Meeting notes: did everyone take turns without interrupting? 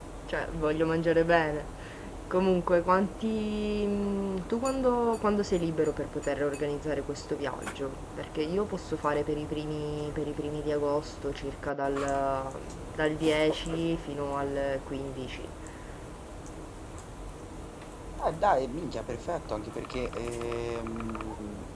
Yes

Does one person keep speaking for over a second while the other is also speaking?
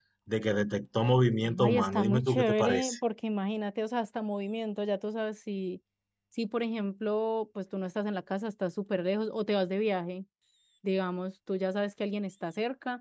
Yes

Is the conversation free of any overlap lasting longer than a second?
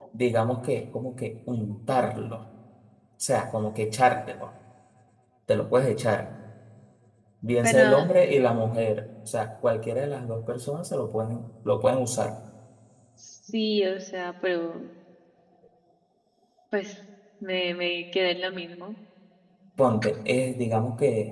Yes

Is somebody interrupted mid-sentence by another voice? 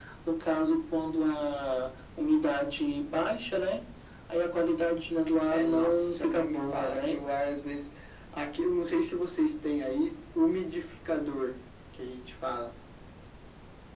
Yes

